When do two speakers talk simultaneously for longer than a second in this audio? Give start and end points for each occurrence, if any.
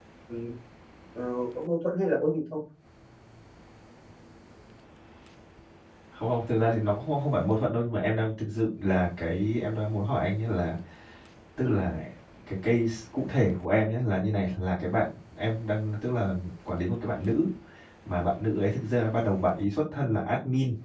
none

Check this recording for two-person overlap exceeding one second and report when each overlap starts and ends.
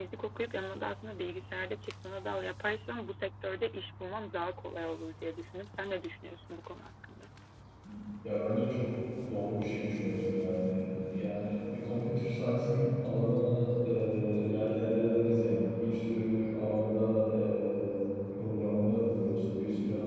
none

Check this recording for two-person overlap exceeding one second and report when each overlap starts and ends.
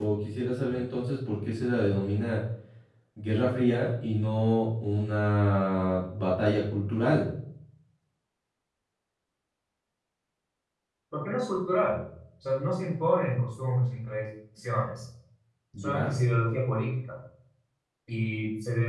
none

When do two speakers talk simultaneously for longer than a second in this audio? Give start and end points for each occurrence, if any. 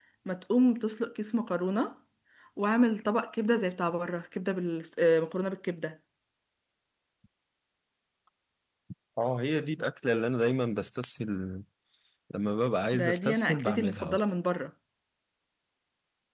12.9-14.2

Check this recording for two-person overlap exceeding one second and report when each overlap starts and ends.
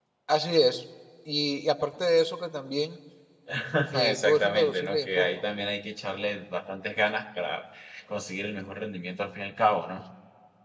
4.1-5.3

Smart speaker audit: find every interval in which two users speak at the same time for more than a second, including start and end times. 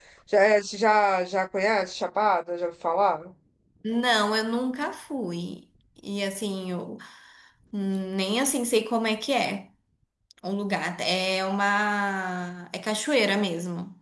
none

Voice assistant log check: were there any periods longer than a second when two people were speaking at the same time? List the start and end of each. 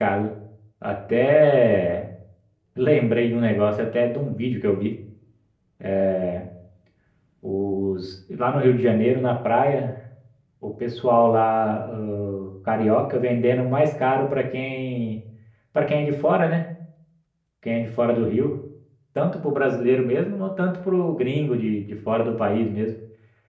none

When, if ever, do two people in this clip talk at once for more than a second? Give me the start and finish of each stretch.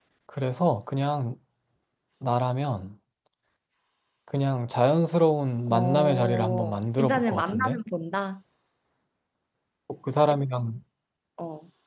5.7-7.8

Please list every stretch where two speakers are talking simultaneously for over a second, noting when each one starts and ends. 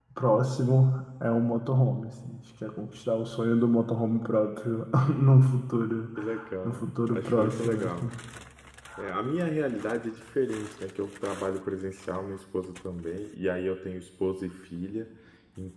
6.6-8.1

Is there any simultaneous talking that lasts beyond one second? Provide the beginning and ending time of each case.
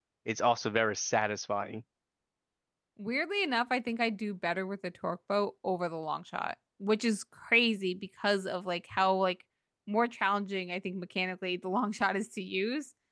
none

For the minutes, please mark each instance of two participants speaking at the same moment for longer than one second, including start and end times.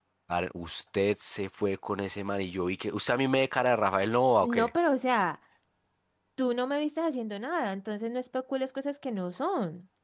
none

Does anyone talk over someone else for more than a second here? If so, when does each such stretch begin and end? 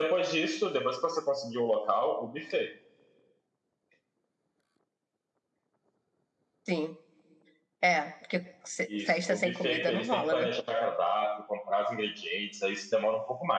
8.9-10.5

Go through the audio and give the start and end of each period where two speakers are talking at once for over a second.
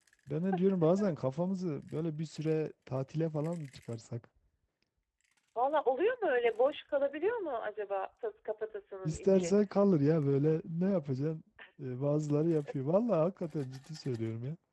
none

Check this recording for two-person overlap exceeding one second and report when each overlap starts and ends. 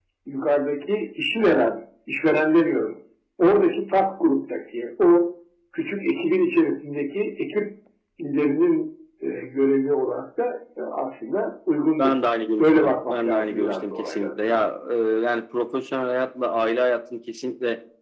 12.6-14.6

